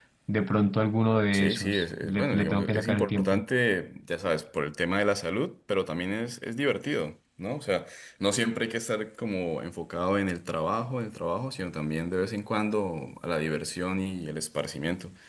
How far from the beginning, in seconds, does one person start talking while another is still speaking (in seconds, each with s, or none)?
1.3 s